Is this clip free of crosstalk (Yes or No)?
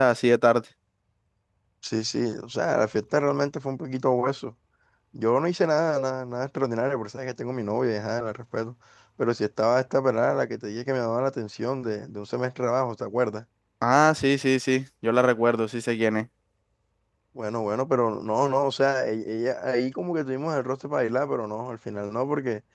Yes